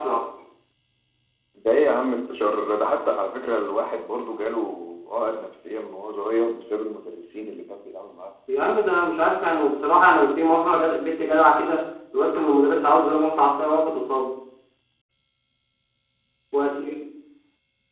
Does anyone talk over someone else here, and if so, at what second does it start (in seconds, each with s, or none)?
none